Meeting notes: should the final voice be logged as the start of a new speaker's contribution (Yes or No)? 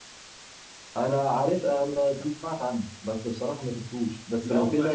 Yes